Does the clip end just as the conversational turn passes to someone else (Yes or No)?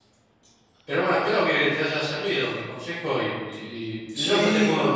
Yes